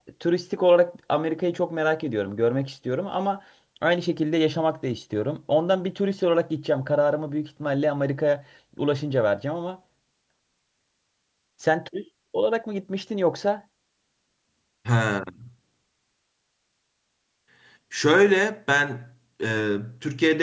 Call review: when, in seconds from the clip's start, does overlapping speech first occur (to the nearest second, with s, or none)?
none